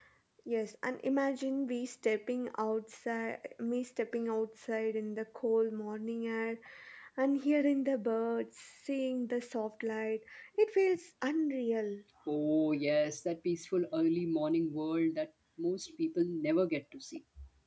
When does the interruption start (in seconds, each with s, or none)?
none